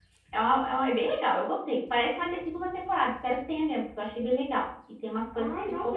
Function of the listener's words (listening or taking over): taking over